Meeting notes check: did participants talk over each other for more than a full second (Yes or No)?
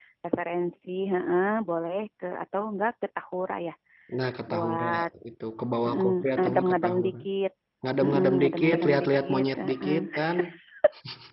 Yes